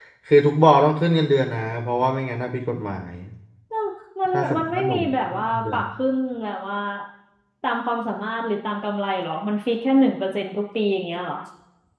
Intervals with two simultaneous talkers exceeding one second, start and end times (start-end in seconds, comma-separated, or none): 4.3-5.8